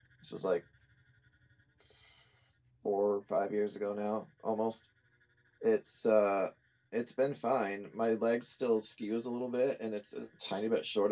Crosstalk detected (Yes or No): No